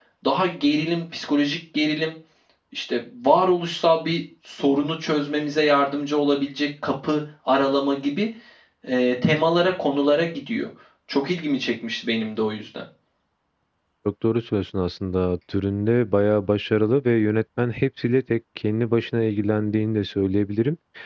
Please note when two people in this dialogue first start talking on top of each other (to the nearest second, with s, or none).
none